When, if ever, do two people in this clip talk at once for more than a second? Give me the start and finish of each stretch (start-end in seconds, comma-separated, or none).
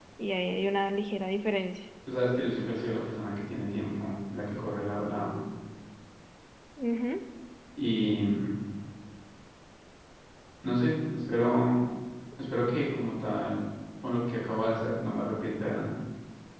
none